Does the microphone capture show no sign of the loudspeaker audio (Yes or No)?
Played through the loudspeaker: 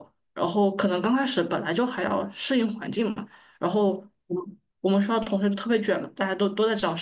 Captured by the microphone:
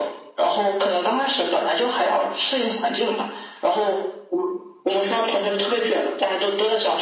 No